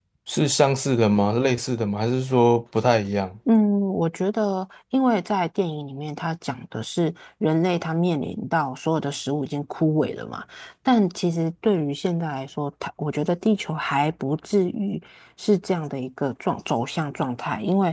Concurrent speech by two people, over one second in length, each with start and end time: none

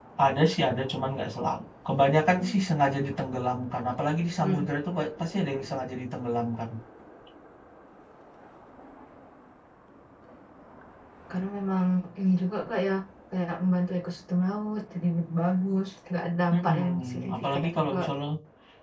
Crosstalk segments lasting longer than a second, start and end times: 16.5-18.0

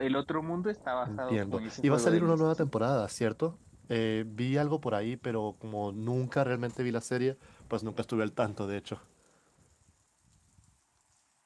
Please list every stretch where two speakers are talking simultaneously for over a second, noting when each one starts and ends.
1.0-2.7

